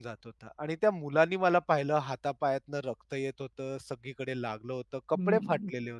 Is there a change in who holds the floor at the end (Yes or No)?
Yes